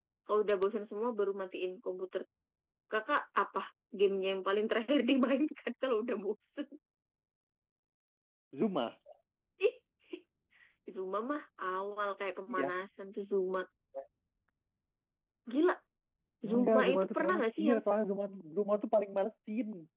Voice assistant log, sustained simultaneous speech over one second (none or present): present